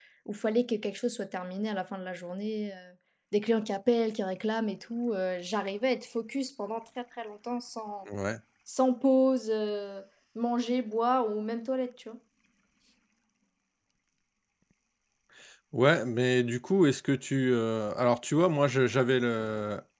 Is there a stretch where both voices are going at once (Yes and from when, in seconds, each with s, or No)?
No